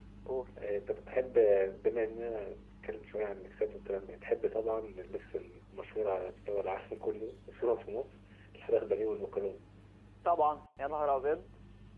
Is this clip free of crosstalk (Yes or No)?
Yes